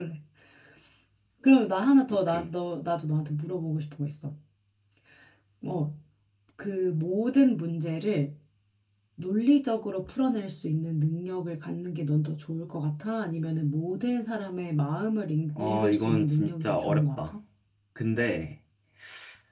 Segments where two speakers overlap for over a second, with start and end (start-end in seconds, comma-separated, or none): 15.6-17.3